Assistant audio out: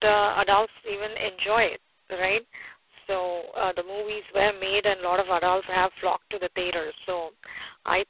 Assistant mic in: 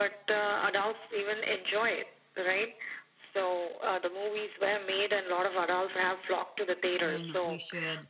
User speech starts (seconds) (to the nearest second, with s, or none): 7 s